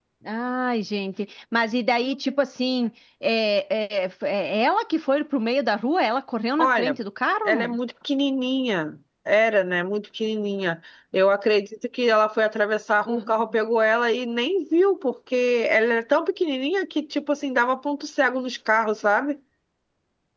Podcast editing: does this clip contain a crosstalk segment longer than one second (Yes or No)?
No